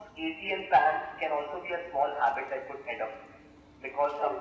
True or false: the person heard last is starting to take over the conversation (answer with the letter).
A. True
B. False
B